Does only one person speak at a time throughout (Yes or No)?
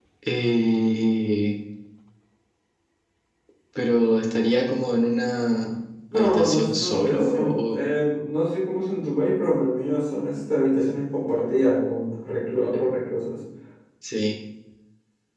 No